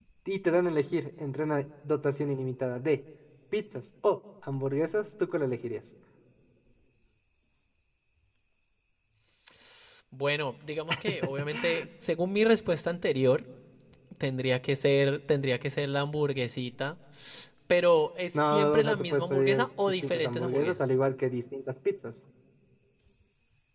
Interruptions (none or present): present